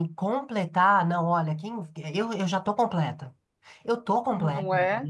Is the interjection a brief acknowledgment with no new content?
No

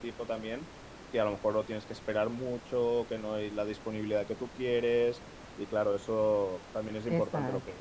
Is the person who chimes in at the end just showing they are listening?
Yes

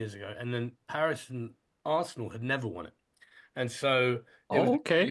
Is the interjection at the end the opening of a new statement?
Yes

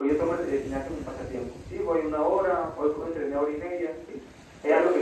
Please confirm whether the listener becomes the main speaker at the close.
No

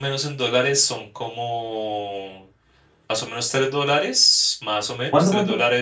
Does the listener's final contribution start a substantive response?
No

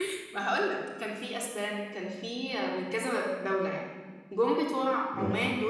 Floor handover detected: No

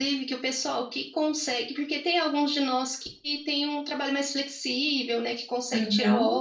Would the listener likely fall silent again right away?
Yes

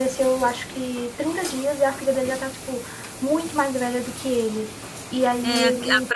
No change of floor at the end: No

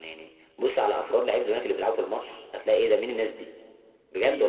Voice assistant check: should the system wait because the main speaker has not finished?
No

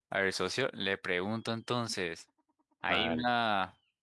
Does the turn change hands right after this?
No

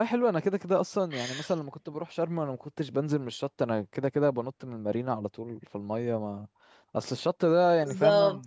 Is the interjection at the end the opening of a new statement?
No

